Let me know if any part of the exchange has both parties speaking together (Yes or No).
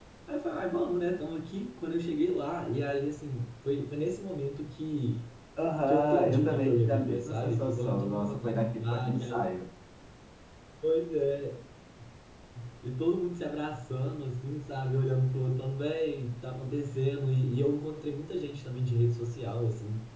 Yes